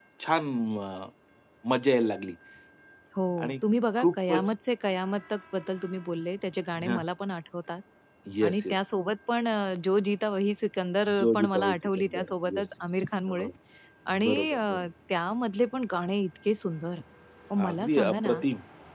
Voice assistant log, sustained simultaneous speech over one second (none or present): present